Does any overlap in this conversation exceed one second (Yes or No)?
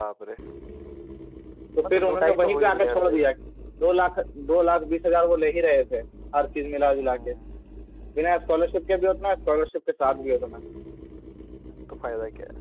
Yes